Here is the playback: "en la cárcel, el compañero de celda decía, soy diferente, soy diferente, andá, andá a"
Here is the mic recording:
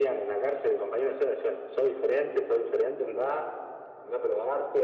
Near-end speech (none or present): none